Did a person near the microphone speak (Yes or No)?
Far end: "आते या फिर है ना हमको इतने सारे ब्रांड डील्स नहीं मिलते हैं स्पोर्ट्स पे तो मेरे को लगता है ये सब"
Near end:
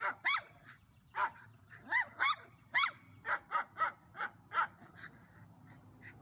No